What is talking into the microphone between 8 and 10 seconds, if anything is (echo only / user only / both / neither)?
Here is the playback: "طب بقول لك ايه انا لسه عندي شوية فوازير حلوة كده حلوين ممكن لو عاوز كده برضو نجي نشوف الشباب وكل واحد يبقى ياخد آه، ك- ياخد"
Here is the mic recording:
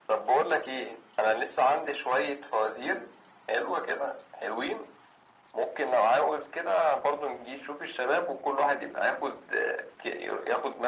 echo only